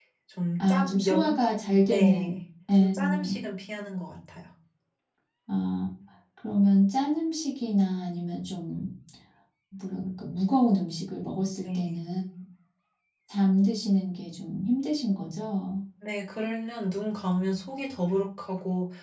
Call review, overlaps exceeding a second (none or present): present